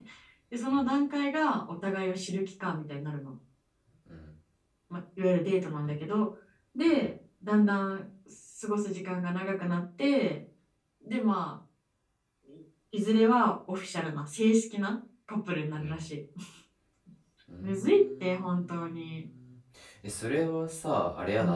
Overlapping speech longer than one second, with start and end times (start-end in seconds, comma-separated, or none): 17.6-19.2